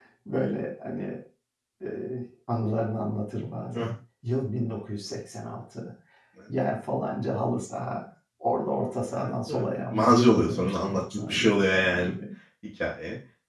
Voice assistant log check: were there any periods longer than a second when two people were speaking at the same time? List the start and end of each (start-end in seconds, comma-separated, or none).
9.1-12.1